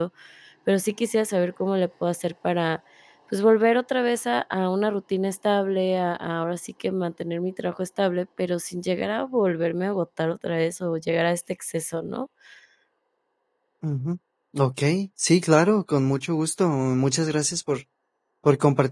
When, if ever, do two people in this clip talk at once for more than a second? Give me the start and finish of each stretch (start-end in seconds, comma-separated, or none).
none